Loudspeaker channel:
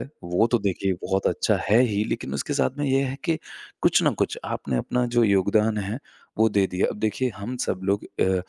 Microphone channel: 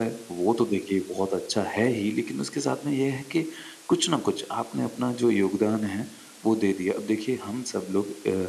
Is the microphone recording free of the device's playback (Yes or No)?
No